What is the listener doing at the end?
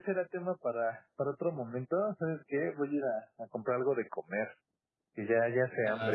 taking over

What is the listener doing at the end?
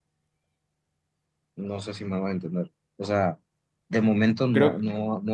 listening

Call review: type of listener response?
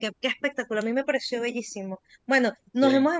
listening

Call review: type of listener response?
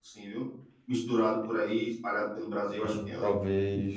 taking over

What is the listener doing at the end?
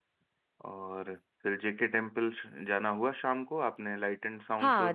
taking over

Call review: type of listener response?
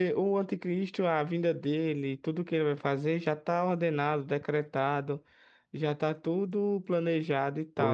listening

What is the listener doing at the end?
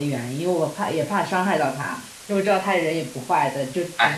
taking over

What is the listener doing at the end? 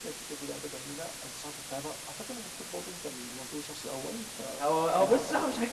taking over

